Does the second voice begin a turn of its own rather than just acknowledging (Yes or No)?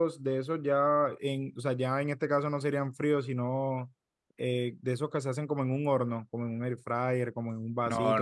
No